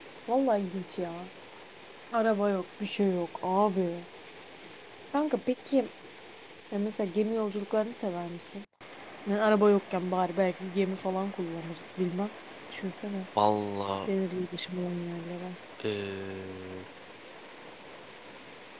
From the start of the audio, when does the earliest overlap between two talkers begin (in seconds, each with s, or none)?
none